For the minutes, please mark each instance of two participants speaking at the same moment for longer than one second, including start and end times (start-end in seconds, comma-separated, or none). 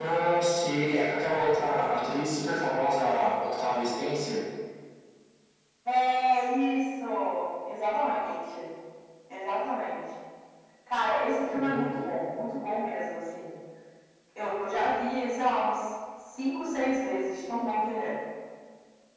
none